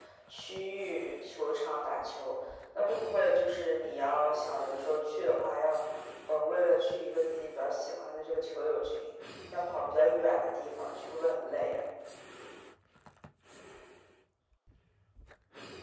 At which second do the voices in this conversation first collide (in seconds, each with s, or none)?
none